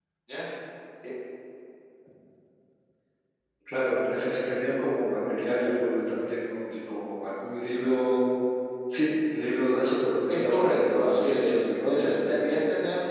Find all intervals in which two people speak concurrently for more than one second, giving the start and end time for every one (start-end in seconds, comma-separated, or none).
10.3-12.5